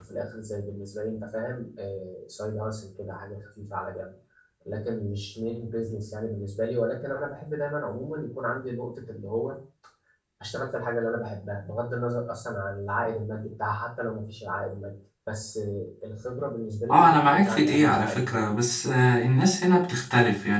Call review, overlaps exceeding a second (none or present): present